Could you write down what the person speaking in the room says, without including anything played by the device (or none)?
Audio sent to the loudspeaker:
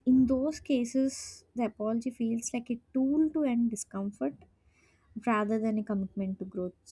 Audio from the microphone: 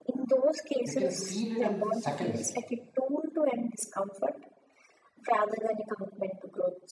You can feel it in seconds.